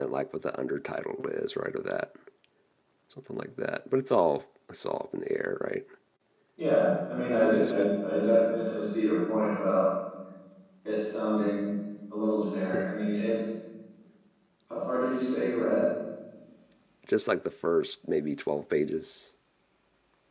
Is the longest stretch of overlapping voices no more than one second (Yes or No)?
Yes